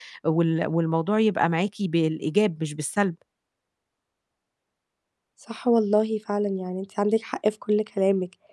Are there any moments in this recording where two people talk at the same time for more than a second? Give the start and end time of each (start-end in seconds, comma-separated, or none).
none